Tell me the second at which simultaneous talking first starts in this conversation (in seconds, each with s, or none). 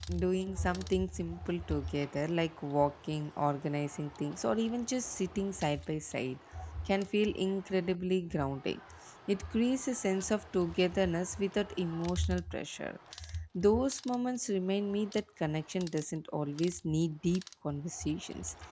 none